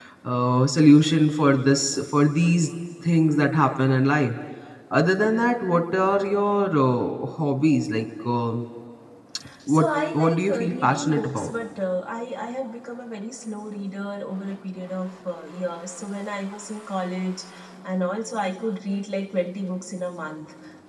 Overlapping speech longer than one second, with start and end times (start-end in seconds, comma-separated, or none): 9.7-11.5